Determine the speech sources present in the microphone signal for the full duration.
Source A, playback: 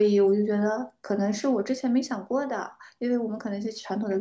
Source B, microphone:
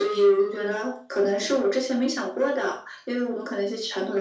echo only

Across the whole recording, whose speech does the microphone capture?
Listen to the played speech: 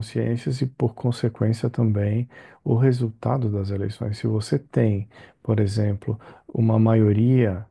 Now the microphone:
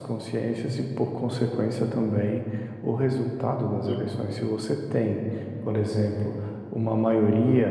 both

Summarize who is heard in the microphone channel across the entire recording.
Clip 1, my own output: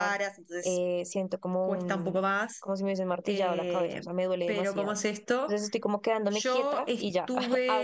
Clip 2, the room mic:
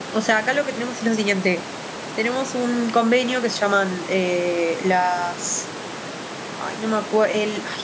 user only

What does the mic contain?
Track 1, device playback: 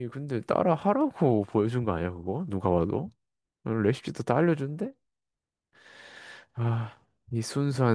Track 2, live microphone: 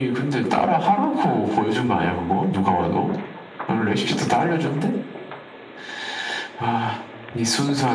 echo only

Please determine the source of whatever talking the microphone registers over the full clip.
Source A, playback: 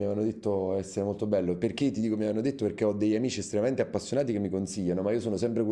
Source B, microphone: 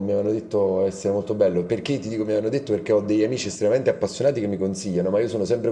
echo only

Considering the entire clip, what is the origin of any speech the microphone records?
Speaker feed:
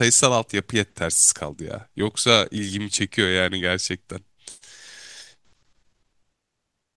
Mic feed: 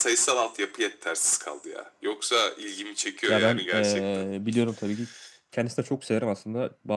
both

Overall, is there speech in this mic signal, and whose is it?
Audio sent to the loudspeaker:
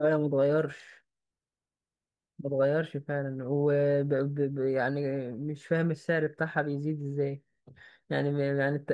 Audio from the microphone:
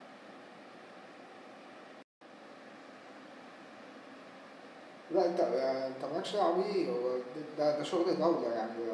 user only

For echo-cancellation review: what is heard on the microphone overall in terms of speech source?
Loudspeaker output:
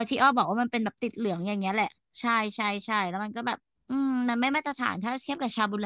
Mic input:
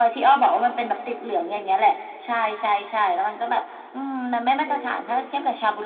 both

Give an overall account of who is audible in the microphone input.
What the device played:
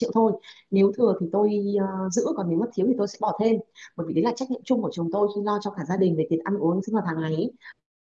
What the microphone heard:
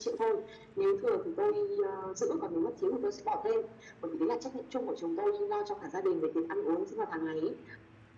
echo only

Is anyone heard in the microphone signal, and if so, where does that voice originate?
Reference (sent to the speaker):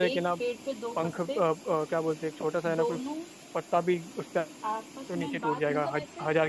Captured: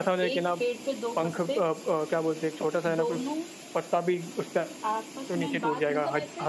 echo only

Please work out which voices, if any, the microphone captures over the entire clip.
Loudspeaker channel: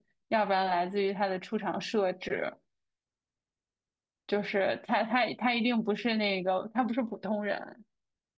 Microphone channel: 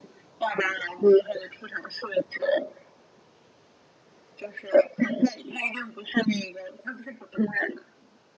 echo only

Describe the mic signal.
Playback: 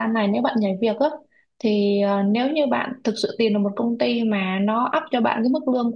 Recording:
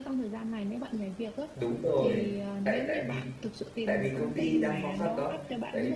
both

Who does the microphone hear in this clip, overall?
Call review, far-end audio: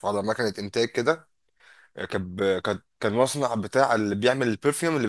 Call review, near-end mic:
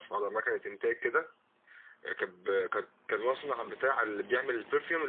echo only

